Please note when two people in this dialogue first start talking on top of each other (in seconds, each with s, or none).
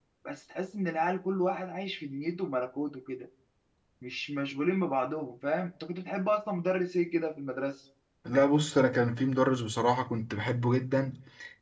none